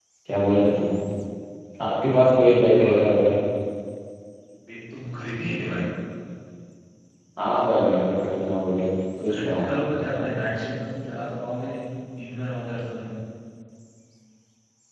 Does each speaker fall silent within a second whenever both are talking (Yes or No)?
No